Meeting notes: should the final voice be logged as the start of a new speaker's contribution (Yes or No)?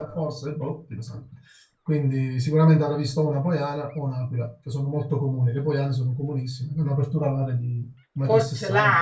Yes